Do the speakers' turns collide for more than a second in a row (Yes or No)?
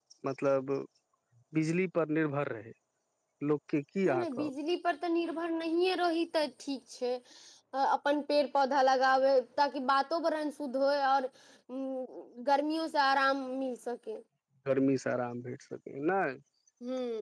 No